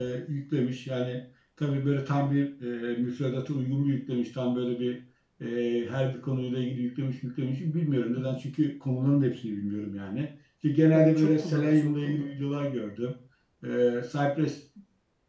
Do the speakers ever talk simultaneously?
Yes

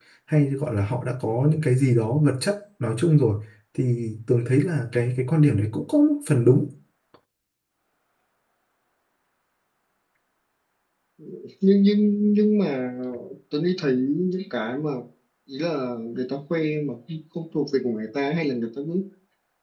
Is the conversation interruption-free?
Yes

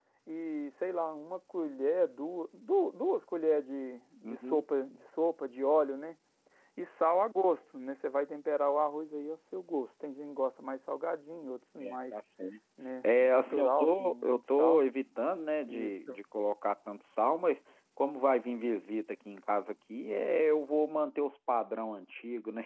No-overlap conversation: No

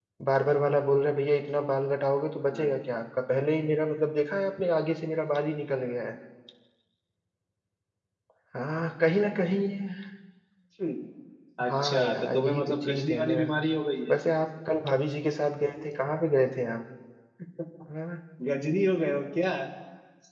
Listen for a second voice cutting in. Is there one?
Yes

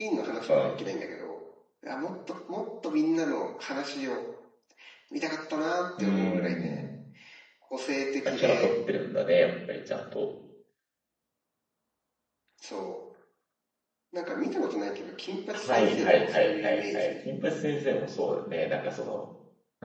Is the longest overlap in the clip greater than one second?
Yes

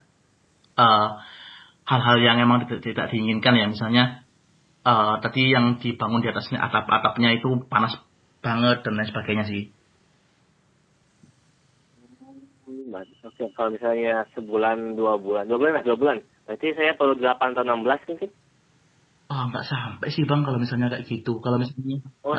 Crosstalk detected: No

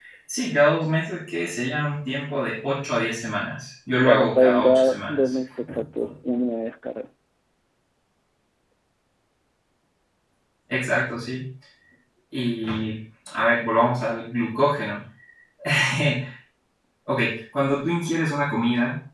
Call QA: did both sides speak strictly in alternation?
No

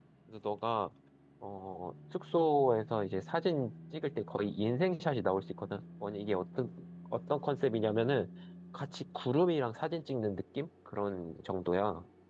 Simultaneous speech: No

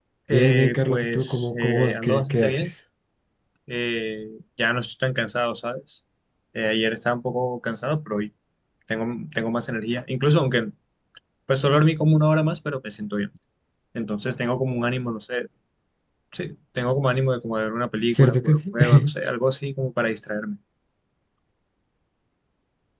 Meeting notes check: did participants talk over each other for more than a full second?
Yes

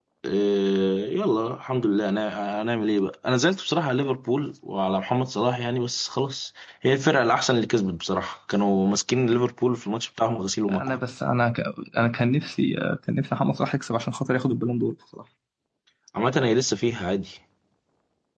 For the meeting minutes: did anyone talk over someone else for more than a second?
No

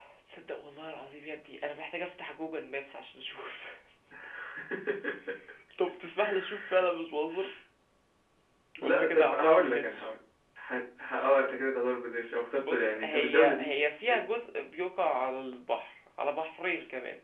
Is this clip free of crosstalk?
No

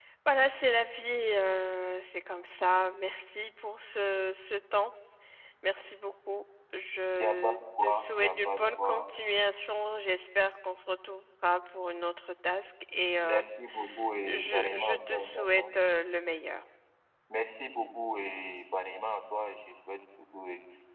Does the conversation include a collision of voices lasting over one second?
Yes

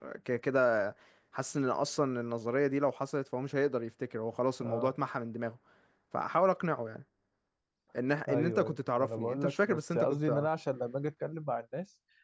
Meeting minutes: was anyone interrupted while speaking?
Yes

